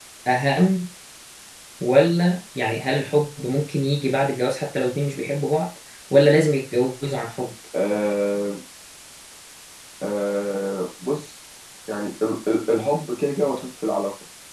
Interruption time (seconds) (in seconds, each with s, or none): none